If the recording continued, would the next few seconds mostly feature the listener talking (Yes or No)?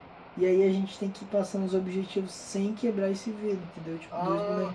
Yes